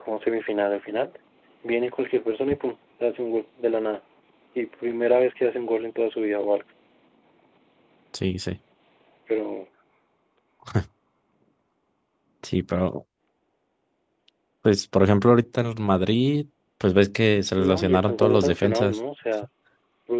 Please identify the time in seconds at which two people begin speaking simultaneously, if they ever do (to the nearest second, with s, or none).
18 s